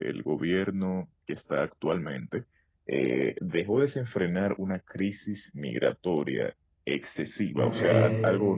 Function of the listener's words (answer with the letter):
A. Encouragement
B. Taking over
A